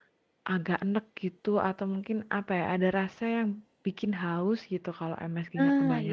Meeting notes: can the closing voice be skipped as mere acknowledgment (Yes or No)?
No